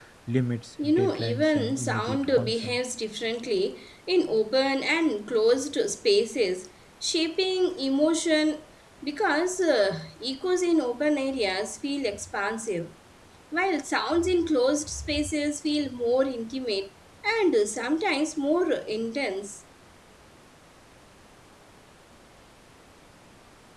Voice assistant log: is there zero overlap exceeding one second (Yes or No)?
No